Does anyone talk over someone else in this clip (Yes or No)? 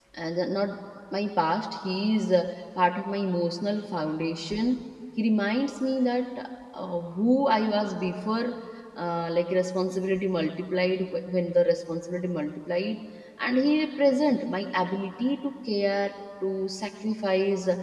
No